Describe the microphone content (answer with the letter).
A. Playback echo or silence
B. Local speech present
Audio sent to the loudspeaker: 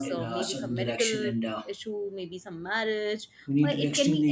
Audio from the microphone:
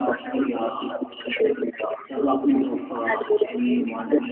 B